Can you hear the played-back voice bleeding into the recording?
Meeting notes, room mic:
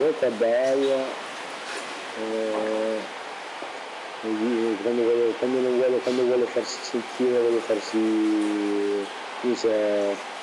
Yes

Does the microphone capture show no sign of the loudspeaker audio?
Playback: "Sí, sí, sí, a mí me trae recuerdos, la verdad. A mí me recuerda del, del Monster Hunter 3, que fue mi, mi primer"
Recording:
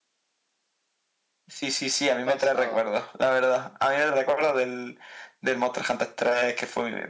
No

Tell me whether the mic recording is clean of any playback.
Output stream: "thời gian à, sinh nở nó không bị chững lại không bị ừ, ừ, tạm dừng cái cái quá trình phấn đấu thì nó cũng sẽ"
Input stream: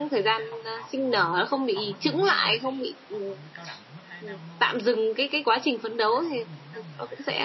No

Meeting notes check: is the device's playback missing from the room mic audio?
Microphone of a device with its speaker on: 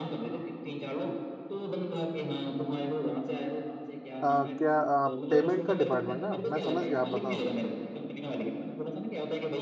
No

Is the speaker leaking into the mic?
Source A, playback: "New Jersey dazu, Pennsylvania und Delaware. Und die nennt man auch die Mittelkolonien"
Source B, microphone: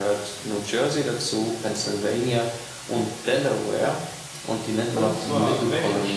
Yes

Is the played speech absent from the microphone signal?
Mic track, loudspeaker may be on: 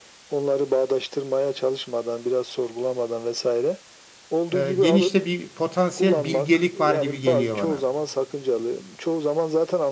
No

